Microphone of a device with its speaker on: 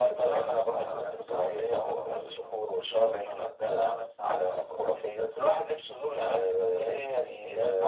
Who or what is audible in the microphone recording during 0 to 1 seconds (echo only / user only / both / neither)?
echo only